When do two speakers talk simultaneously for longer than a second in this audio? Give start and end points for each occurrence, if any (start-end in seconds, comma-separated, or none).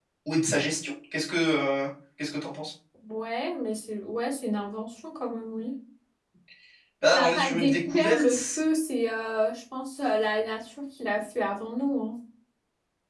7.1-8.6